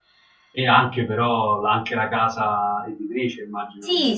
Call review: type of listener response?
taking over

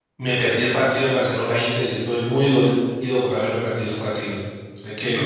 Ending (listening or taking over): listening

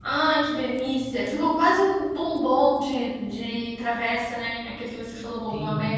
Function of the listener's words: taking over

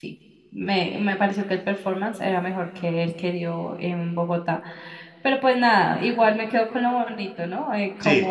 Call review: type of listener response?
listening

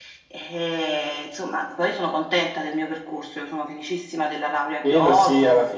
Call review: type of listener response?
taking over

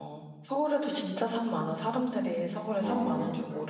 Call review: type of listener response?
taking over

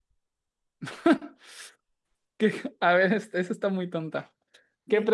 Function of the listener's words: listening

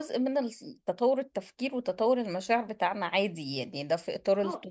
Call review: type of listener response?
listening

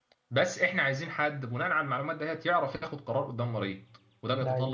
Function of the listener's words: listening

